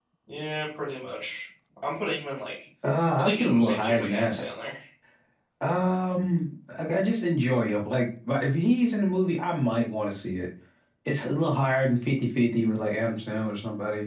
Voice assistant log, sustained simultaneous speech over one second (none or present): present